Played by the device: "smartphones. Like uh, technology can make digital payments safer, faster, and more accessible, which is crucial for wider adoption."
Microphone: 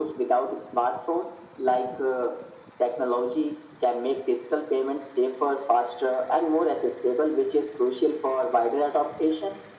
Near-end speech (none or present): none